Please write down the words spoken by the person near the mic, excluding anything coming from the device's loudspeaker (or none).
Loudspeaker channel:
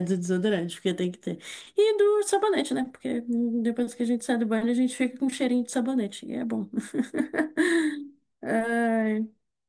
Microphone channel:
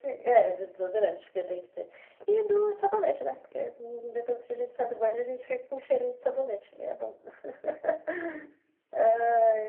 none